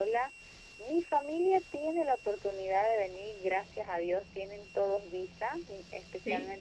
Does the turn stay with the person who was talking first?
Yes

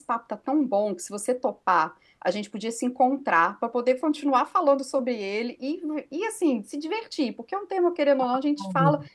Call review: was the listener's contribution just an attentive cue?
Yes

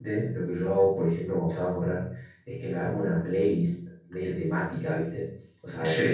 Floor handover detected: No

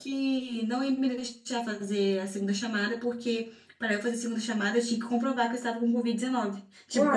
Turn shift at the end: No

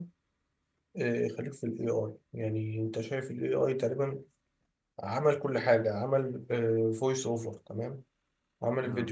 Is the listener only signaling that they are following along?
Yes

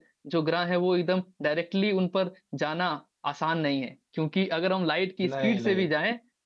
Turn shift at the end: No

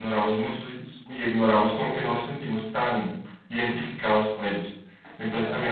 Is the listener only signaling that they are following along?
Yes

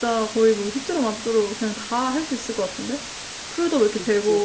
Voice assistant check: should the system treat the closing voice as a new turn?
Yes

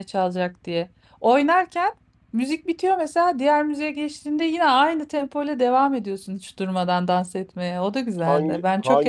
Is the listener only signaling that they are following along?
No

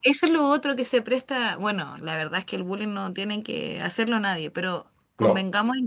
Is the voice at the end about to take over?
No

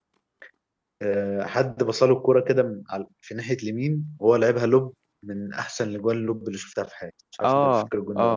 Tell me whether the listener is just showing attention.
No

